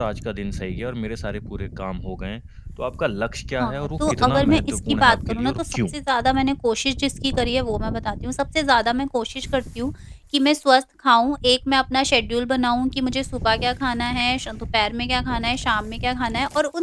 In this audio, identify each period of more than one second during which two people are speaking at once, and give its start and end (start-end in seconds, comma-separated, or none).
3.6-5.8